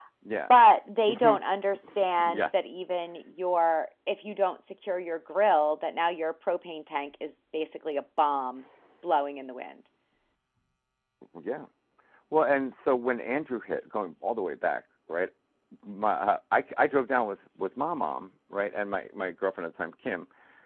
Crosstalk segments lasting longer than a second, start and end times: none

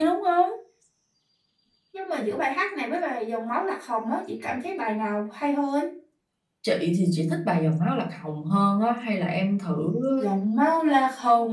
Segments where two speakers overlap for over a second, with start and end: none

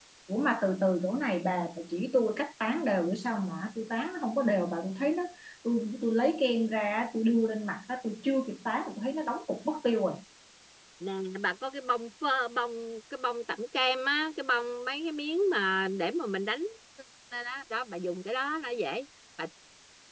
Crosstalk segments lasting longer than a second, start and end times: none

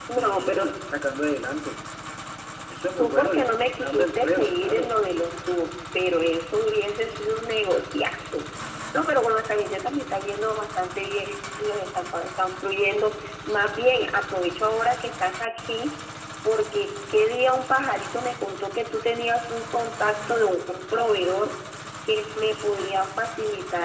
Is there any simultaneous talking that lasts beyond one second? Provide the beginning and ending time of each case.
3.0-4.9

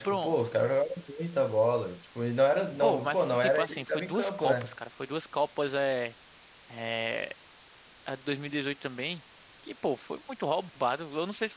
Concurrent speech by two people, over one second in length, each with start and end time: 2.8-4.7

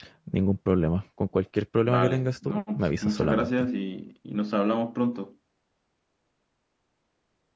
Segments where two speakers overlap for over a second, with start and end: 1.9-3.5

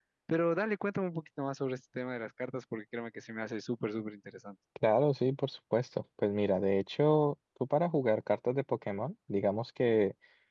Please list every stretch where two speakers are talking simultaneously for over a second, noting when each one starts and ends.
none

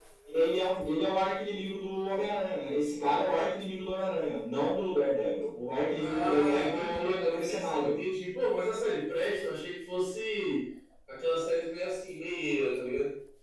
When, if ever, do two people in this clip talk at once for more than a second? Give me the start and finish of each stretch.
5.9-8.0

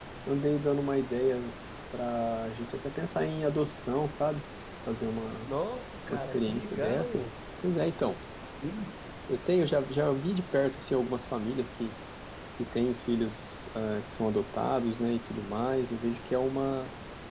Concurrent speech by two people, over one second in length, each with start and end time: 6.1-7.3

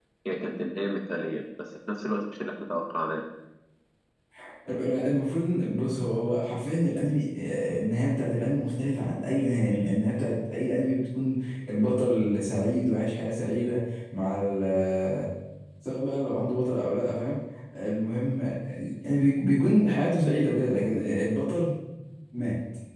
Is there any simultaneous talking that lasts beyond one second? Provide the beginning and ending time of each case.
none

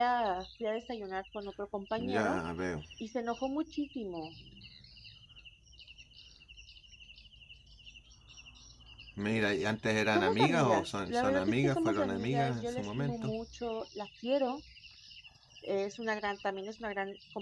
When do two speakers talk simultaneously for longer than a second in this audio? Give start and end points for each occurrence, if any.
10.2-13.3

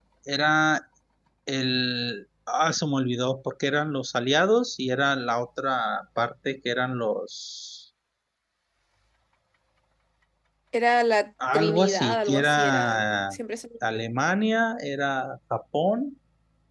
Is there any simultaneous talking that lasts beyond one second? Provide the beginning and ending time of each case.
11.5-13.2

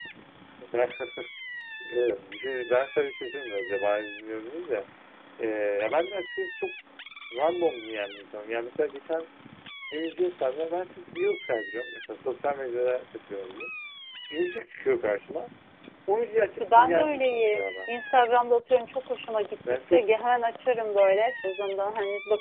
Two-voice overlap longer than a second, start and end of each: 16.6-17.9

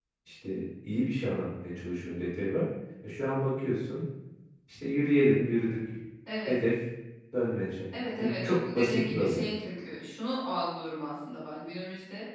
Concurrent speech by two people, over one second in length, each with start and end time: 8.2-9.4

